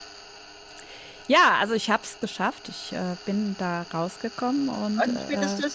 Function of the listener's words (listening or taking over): taking over